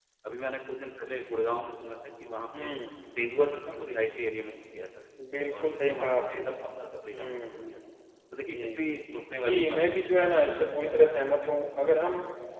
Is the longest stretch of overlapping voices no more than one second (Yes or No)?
No